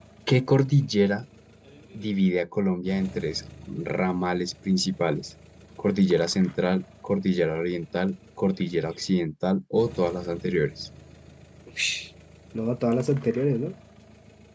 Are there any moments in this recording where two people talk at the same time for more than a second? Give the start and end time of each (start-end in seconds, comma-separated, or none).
none